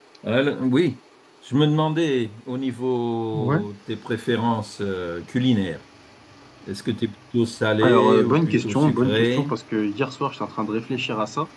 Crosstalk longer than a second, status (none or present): present